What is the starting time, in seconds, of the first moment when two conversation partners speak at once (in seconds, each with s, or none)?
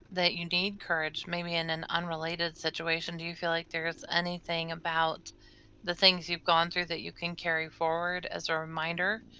none